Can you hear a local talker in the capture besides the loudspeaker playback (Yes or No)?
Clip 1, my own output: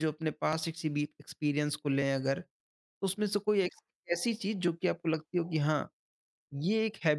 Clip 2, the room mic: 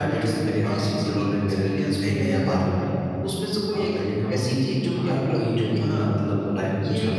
Yes